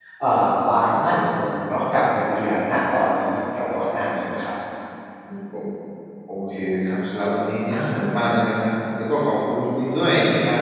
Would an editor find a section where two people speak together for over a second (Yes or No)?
No